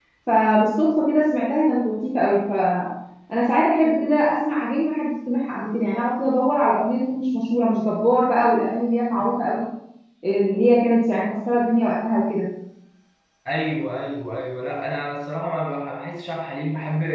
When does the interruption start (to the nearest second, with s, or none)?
none